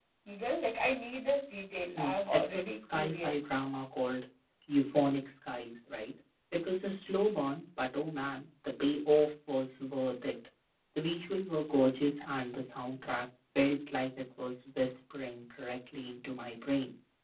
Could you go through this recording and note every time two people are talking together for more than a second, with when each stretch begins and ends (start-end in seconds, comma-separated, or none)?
2.0-3.3